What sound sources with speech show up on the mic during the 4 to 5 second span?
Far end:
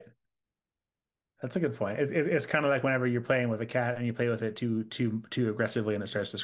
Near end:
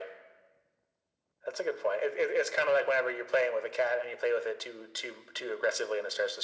echo only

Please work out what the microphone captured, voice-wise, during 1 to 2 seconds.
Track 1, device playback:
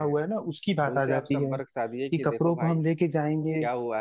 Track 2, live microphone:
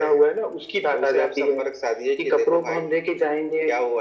echo only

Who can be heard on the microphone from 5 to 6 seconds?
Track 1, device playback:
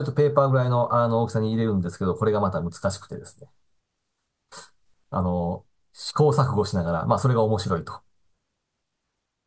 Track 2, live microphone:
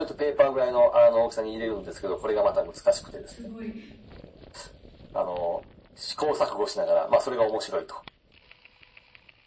echo only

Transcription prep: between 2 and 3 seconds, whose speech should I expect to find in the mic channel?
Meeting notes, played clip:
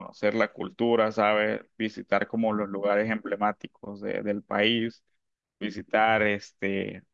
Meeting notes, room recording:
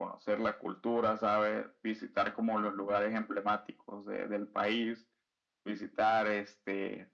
echo only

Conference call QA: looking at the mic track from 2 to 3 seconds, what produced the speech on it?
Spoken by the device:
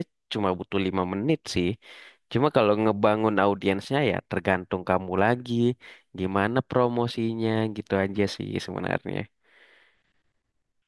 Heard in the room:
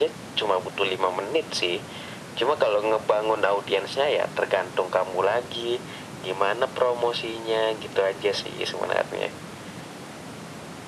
echo only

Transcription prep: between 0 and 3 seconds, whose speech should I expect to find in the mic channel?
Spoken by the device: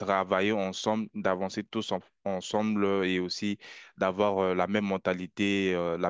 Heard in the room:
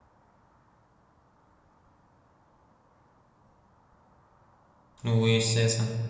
neither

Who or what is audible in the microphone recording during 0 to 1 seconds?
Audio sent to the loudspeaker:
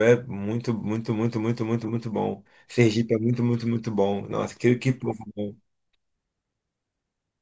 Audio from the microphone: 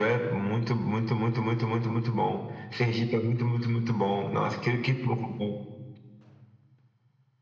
echo only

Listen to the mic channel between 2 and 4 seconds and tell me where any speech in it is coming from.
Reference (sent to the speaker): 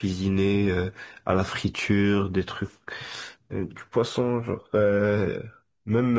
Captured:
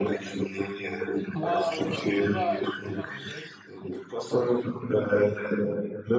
both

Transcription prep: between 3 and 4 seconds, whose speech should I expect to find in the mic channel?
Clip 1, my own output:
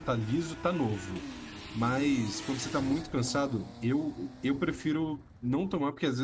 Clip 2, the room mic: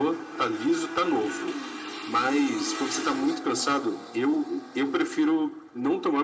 echo only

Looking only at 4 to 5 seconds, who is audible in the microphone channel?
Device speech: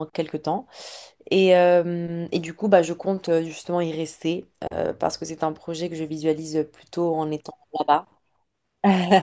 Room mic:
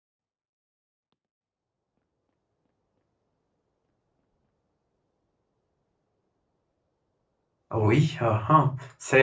neither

